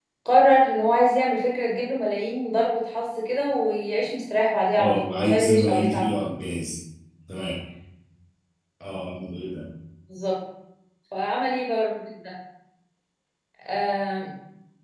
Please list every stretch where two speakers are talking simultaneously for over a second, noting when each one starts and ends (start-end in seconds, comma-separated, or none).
4.8-6.2